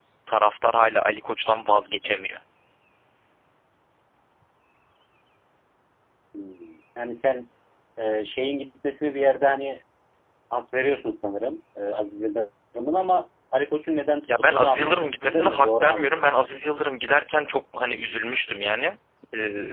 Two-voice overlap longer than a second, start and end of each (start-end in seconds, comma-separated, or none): 14.4-16.2